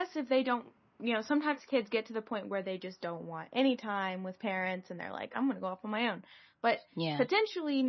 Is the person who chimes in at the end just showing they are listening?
Yes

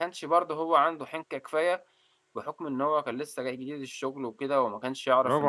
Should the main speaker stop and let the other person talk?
Yes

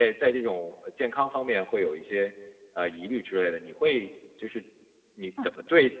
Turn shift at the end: No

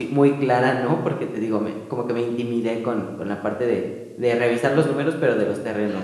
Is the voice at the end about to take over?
Yes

